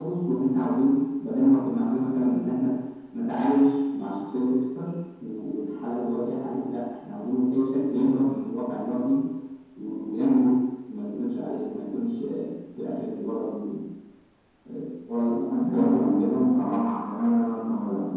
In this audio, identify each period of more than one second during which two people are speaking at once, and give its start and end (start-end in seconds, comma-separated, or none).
15.3-16.8